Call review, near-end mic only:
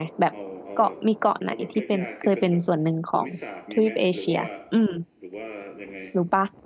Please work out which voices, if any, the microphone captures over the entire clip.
both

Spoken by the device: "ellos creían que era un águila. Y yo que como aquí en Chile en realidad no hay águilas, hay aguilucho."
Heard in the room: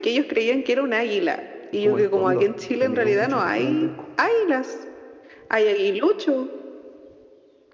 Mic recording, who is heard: both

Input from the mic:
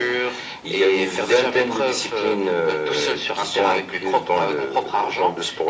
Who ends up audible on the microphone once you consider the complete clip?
echo only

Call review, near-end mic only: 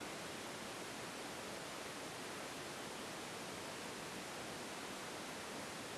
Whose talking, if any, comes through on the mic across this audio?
neither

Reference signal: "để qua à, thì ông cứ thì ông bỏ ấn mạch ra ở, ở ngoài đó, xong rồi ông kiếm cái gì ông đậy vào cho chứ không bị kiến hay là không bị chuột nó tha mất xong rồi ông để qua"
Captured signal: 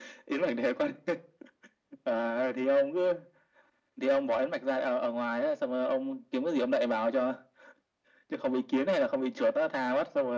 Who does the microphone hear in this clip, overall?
echo only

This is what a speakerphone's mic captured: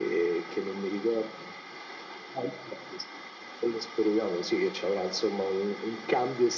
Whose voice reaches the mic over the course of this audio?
echo only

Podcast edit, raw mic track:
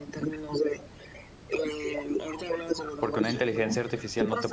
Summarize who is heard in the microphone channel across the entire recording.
both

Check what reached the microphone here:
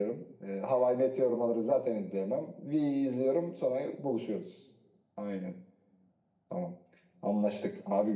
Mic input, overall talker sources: echo only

